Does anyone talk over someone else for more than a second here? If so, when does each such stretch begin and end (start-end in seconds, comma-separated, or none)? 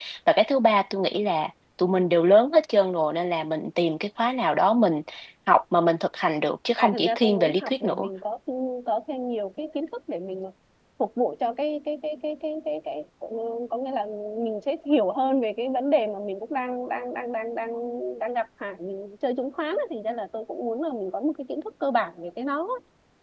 6.8-8.1